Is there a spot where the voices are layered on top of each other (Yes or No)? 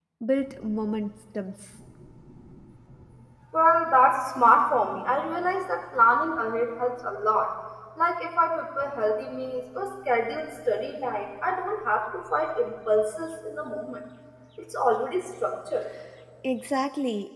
No